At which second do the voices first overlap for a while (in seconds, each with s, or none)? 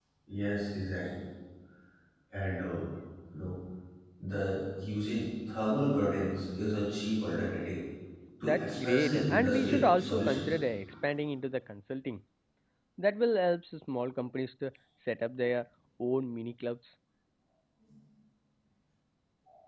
8.5 s